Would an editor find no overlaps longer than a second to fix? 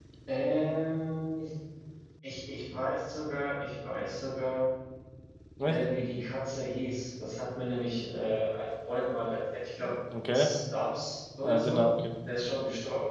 Yes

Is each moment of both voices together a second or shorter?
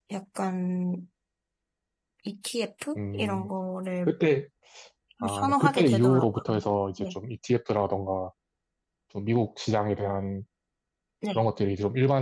No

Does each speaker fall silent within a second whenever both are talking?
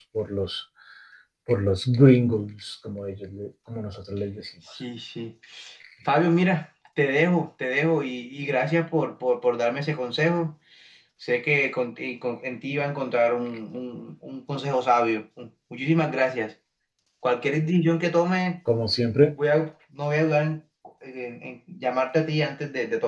Yes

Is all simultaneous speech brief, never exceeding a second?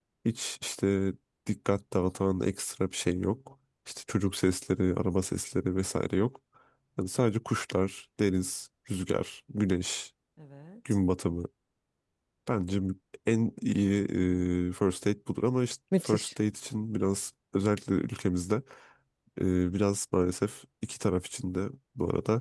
Yes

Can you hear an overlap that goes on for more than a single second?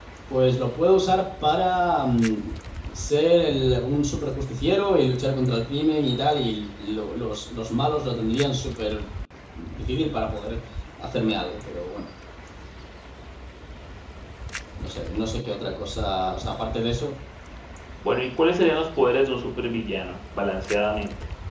No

